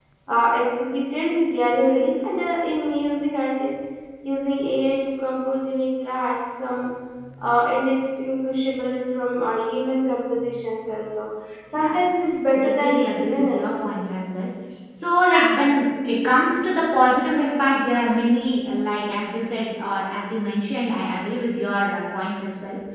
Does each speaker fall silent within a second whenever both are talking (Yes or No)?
No